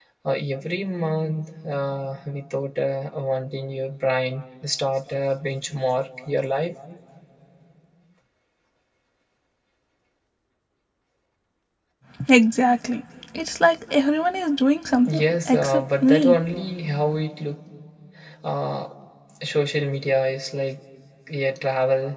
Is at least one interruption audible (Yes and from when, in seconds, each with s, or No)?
Yes, from 15.0 s